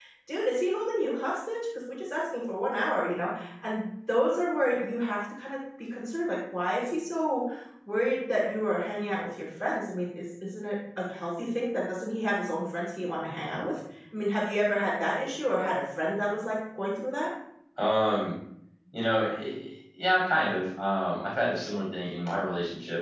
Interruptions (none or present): none